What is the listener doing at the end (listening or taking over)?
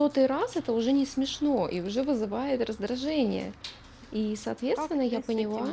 taking over